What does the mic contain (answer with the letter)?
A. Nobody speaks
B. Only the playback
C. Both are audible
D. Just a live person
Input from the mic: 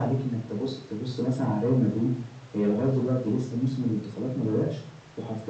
B